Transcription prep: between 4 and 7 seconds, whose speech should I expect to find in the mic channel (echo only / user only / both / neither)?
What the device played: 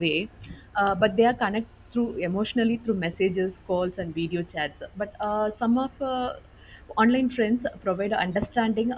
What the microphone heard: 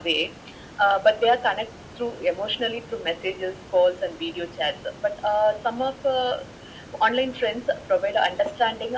echo only